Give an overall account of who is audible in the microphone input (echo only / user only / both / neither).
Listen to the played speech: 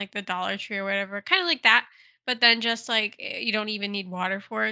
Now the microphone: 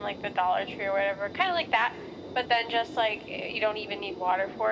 echo only